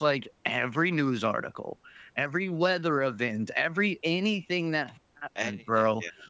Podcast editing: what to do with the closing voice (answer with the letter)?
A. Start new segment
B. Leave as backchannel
B